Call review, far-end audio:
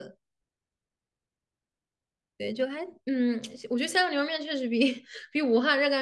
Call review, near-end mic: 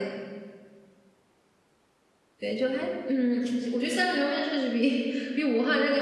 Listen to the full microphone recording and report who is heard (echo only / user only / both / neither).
echo only